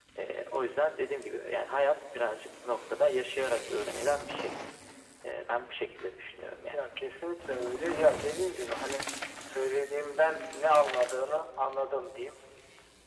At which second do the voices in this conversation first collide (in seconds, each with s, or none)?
none